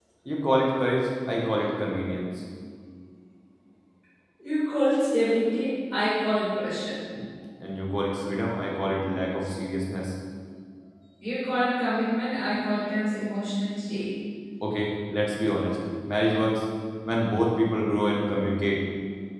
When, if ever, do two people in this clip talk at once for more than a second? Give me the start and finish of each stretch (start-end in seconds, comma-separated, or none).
none